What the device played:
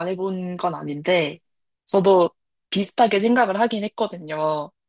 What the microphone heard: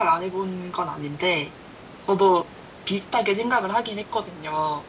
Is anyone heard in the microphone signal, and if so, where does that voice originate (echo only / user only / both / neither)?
echo only